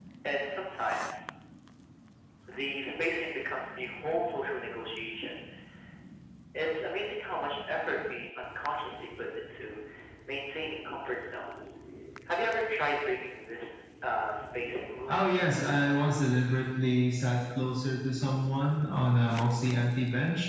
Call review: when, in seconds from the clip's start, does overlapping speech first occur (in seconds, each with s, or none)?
15.1 s